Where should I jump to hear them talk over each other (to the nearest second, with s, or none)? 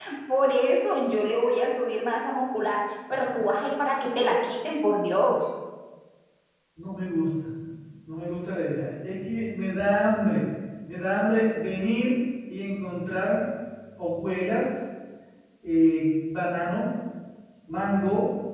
none